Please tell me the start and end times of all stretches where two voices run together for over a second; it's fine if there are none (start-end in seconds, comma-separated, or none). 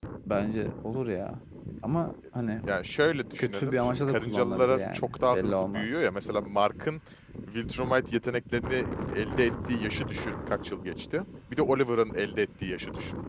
3.4-5.9